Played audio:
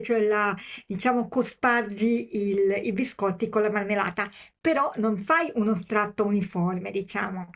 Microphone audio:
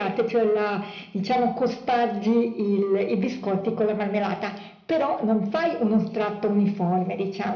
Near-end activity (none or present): none